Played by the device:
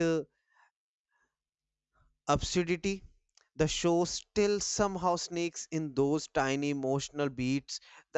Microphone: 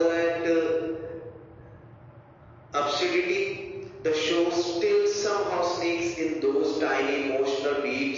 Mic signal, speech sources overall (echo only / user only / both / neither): echo only